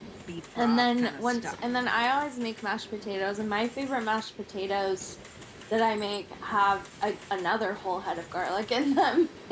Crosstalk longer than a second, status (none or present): present